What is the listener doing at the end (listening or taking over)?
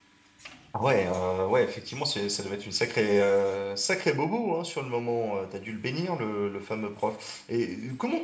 listening